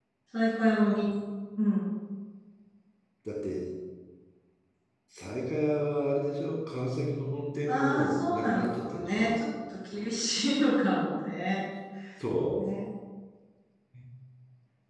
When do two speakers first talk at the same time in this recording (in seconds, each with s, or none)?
7.7 s